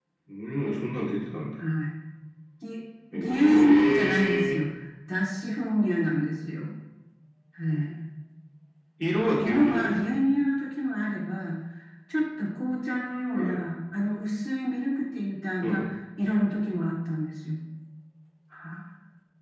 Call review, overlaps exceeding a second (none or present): present